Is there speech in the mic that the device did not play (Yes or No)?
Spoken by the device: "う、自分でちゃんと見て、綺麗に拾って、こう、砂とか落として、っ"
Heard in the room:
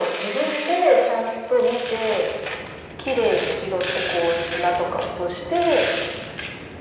No